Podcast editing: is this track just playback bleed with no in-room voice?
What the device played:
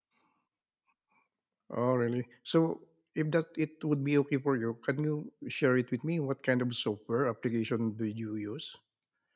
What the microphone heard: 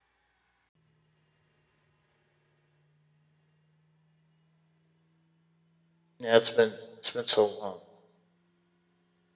No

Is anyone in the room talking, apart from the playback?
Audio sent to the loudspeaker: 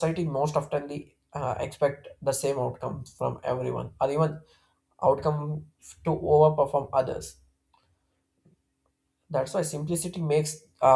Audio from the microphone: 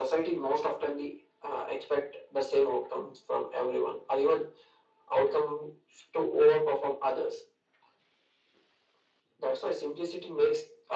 No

